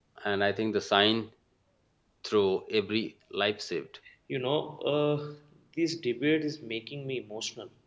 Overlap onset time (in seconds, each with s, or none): none